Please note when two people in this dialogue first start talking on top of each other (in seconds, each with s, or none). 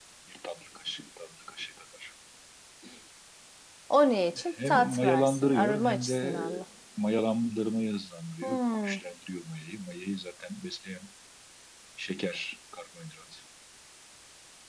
4.7 s